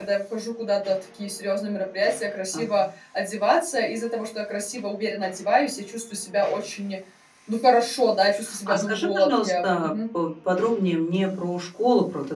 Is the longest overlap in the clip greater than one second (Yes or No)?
Yes